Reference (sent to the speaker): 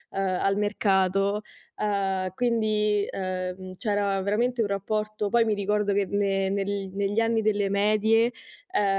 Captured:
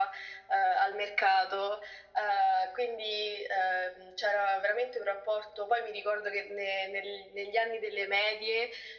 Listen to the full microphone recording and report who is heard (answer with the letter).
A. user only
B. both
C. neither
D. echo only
D